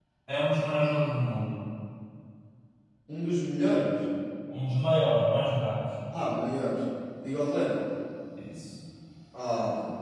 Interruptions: none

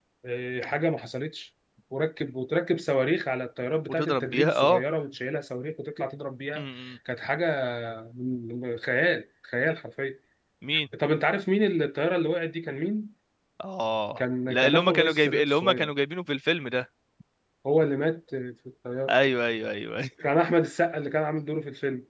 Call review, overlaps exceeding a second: present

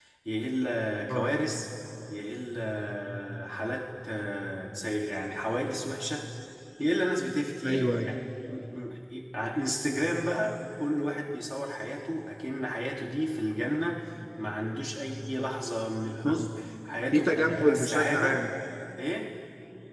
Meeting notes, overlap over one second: present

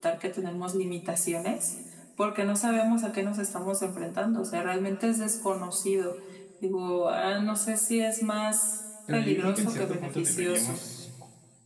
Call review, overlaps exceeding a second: present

